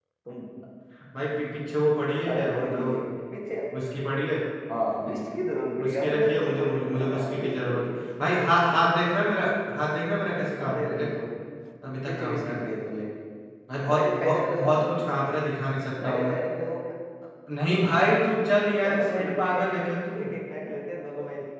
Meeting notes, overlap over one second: present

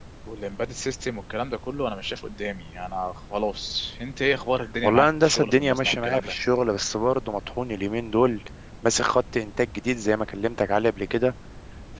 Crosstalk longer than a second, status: present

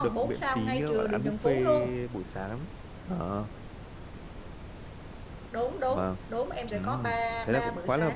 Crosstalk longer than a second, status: present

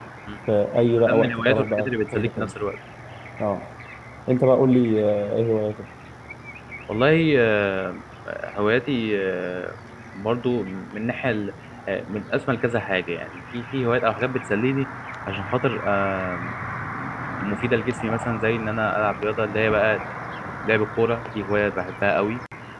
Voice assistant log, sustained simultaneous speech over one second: present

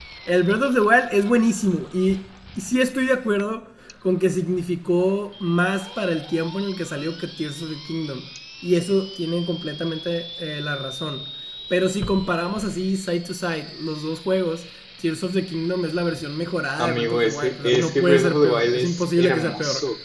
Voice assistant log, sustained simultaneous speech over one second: present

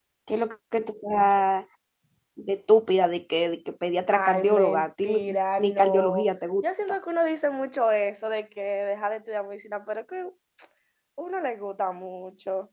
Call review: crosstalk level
present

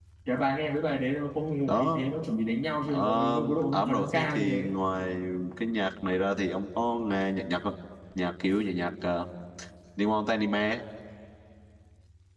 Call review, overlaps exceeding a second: present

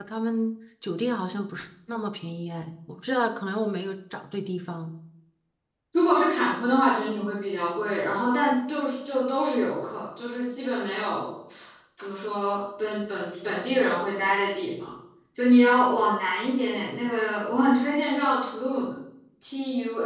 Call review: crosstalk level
none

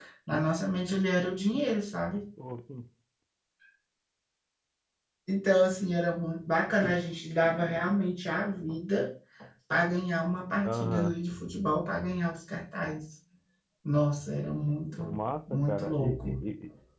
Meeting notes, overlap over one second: present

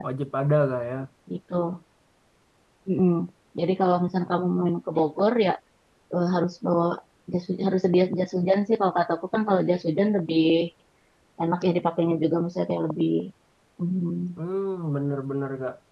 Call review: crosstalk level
none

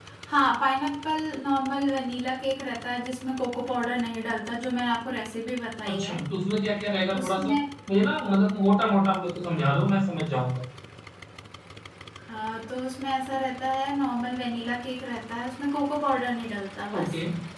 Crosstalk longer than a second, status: none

